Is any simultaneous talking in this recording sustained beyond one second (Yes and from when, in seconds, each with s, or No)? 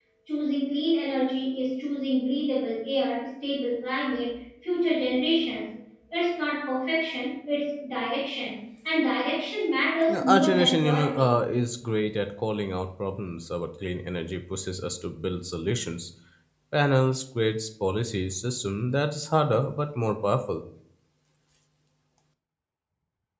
Yes, from 10.1 s